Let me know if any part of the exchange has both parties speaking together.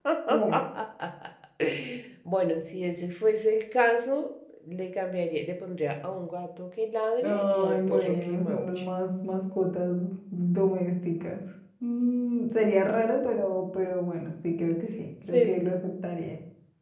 Yes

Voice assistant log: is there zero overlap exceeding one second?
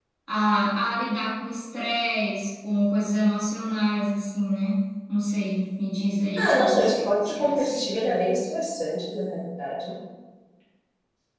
No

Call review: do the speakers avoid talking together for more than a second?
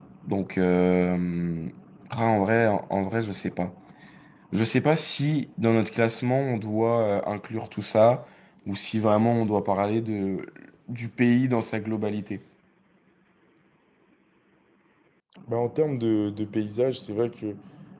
Yes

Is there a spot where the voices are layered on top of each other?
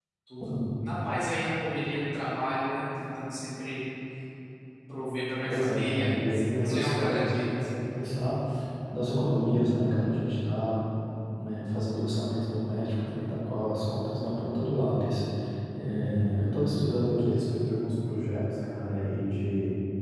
Yes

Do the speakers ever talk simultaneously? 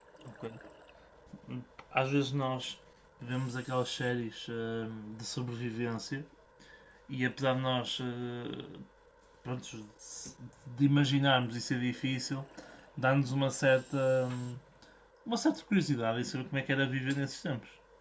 No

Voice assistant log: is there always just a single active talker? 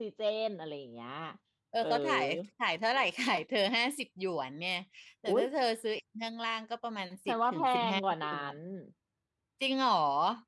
No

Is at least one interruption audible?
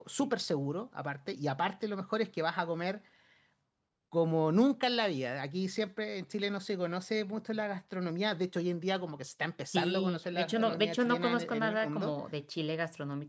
Yes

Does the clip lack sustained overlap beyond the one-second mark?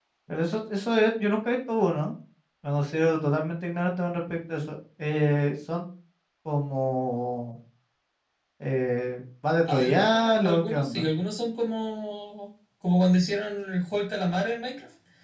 No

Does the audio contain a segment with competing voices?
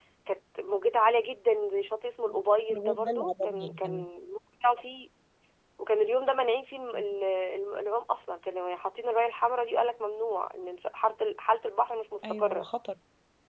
Yes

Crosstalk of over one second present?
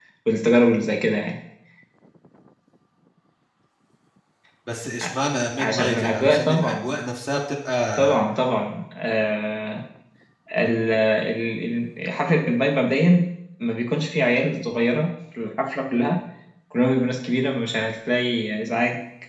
Yes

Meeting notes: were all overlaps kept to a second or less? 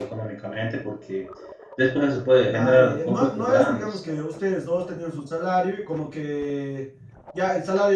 No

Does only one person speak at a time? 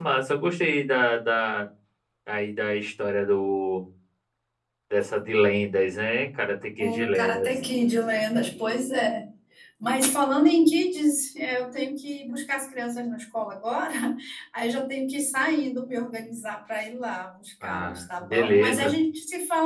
No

